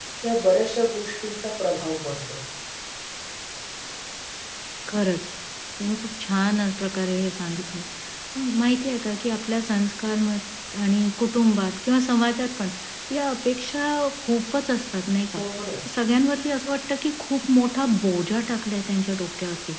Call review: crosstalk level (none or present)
none